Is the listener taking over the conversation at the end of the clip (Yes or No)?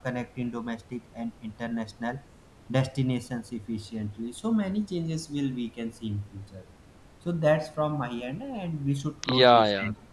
Yes